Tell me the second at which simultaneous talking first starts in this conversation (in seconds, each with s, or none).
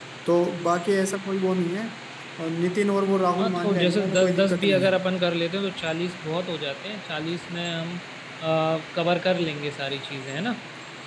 3.4 s